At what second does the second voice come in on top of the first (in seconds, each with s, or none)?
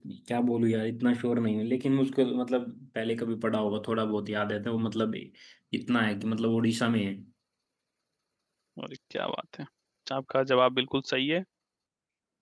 none